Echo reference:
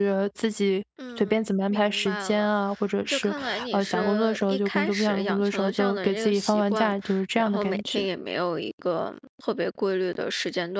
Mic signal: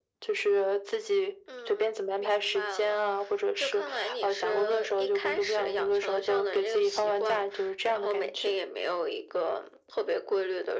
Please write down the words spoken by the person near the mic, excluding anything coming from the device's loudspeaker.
none

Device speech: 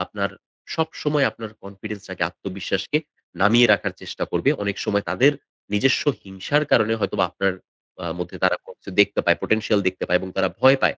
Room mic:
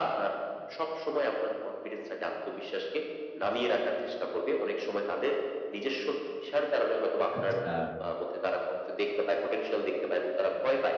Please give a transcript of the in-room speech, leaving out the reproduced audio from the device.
আচ্ছা।

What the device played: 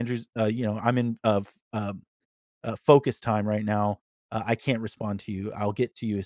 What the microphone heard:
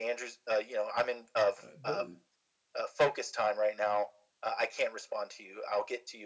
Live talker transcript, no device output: Uh, tho

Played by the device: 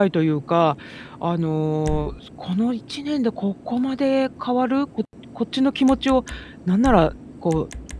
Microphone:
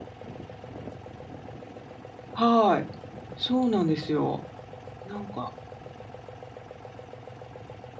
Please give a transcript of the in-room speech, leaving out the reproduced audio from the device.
はい。そうなんですよ。なんか

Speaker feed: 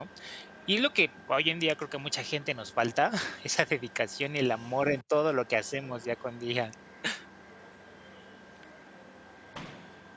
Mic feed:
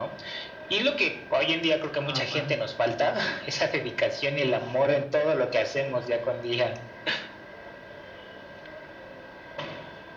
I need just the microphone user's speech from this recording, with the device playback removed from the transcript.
Ah, guau.

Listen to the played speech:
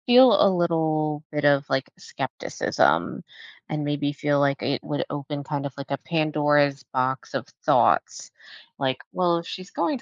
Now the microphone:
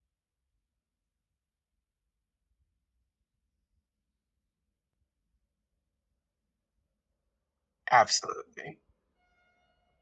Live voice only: Absolutely.

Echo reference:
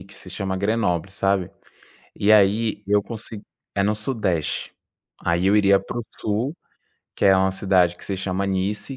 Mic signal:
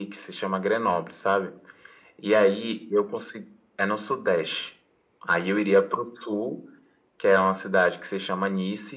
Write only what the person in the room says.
none

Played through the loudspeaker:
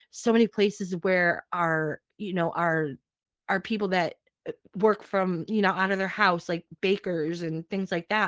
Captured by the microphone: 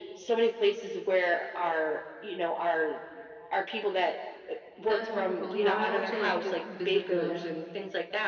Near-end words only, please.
That's wonderful. Yeah, I also like to visit the

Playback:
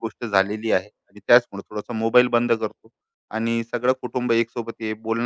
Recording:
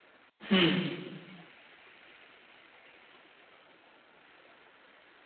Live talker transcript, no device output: हं.

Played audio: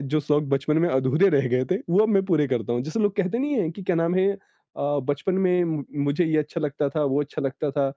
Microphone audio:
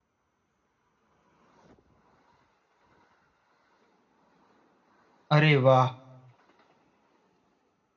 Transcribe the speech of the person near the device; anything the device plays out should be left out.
अरे वाह

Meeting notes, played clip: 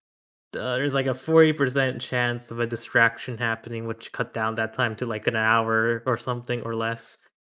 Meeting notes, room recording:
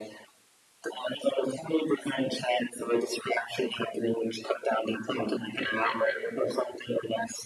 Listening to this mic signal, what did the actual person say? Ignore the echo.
right, right, right.

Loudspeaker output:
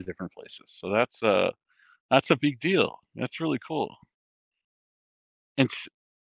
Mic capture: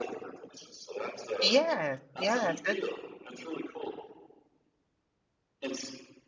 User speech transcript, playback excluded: Yes, yes, it

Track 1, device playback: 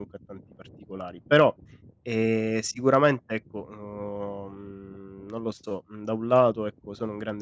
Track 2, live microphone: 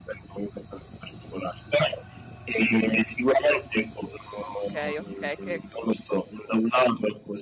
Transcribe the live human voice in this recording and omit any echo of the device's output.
Okay, okay, che mhmm,

